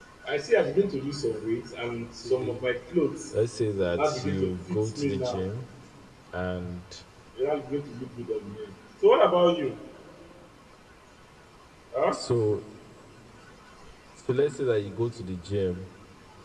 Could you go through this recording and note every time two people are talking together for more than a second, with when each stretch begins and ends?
4.0-5.4

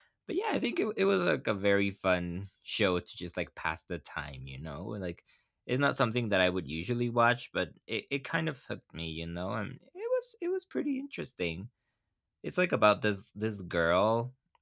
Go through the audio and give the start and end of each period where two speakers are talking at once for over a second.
none

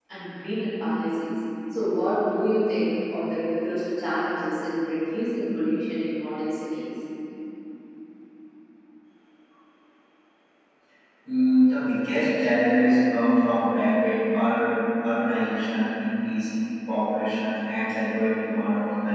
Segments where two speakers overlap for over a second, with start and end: none

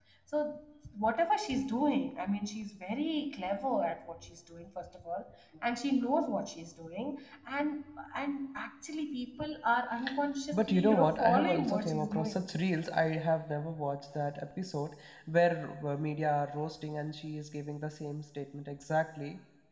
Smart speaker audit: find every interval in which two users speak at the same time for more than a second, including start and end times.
10.5-12.4

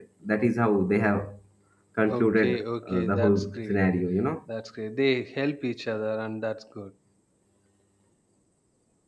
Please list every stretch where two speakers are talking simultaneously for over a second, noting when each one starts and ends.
2.1-3.8

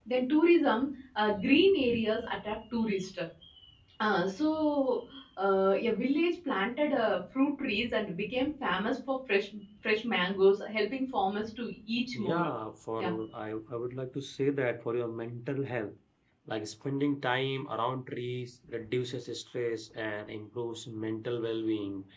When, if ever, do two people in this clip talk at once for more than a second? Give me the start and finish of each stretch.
none

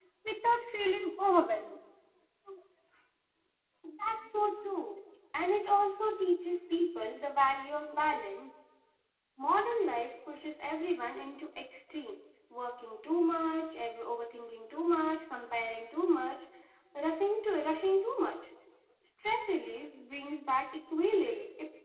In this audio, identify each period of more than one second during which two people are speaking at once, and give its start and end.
none

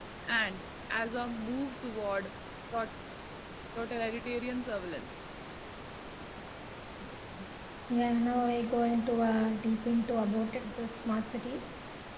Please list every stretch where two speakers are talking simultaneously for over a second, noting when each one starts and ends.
none

